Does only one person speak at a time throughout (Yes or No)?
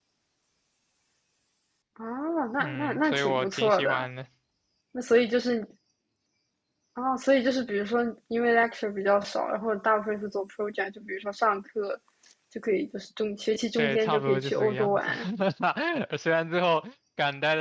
No